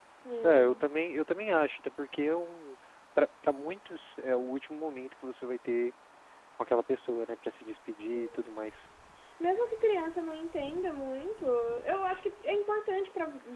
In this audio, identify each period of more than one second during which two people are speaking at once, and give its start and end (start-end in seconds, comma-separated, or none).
none